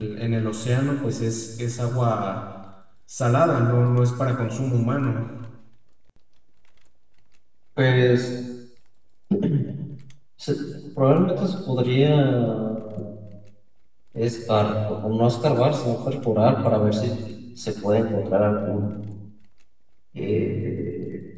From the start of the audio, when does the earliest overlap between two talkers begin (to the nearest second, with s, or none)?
none